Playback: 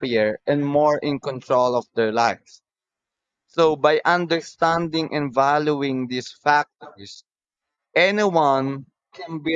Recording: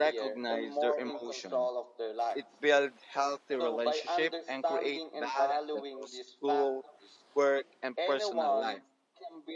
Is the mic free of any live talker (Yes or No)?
No